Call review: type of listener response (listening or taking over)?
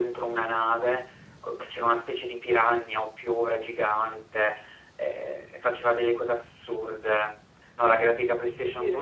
listening